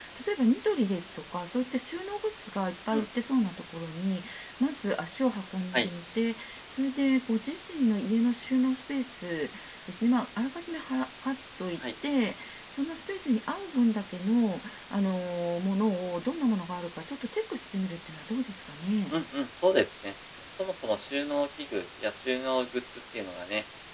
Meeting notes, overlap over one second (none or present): none